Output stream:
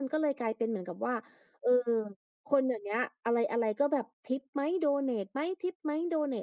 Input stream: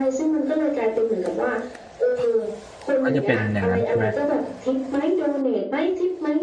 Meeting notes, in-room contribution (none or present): present